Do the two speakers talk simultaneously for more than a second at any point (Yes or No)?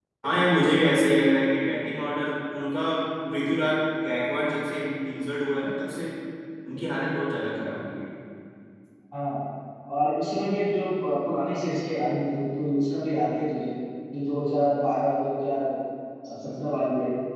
No